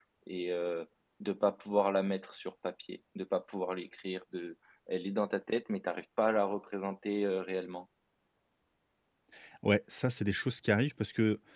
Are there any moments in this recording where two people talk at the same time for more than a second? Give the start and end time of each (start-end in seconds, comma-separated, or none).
none